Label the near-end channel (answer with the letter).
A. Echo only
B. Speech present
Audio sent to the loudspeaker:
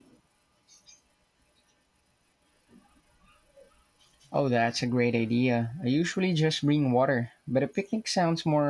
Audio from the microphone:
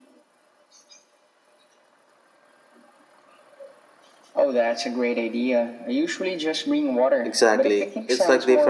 B